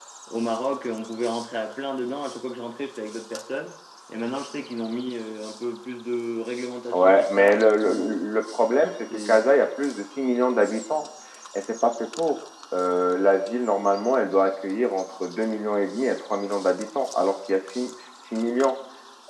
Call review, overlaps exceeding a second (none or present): present